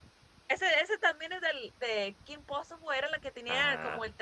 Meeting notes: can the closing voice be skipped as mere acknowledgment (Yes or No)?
Yes